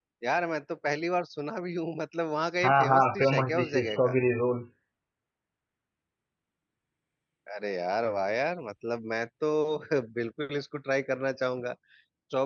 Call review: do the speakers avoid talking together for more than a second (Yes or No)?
No